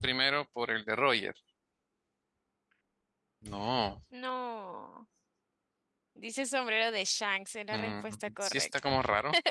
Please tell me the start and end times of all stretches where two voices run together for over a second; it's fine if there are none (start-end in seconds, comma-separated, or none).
7.7-8.9